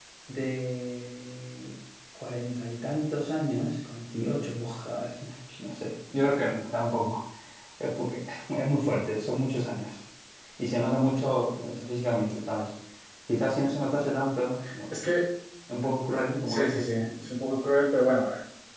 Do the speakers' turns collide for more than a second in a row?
No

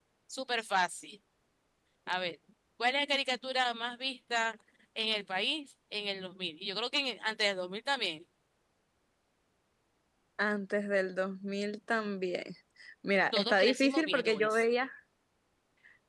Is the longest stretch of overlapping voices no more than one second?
No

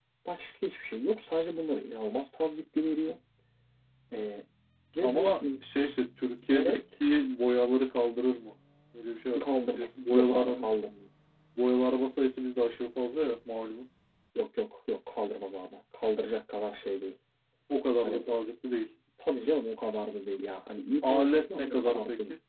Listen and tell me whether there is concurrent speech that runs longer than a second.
Yes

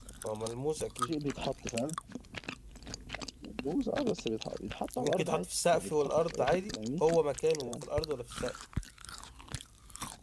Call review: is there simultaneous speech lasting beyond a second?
Yes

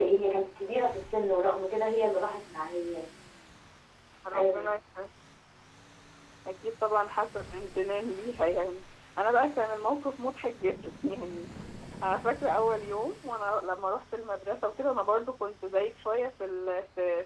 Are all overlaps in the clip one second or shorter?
Yes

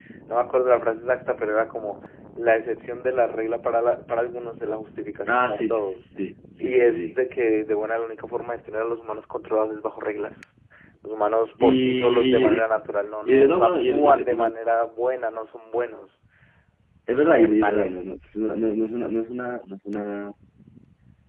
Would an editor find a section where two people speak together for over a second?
Yes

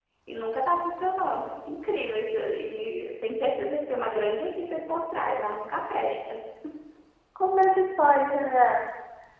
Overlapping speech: No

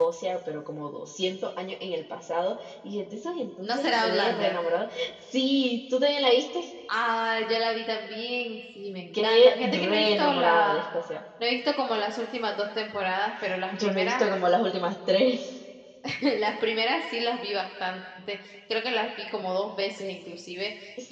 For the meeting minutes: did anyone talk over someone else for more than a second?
Yes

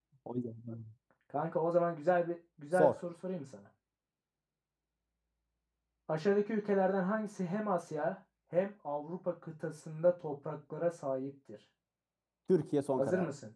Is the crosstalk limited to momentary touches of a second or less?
Yes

